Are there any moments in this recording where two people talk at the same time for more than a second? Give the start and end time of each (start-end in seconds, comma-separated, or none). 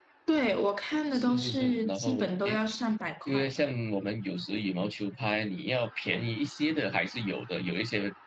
1.1-2.6